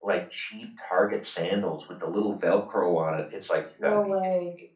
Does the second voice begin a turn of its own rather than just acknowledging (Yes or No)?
No